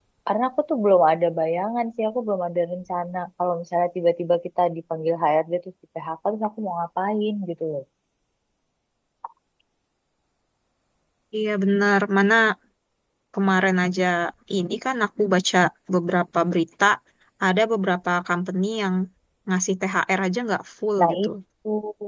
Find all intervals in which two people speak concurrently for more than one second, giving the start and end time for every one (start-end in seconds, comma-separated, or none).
none